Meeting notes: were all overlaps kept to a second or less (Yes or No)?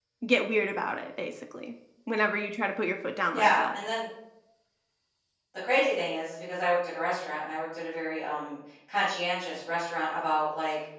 Yes